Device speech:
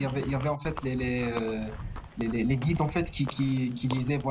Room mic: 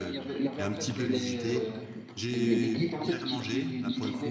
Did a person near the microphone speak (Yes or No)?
Yes